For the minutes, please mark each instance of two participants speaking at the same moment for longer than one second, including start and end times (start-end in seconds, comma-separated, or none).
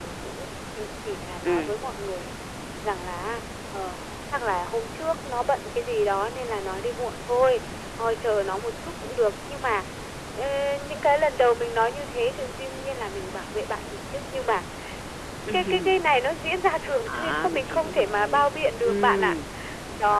17.1-19.3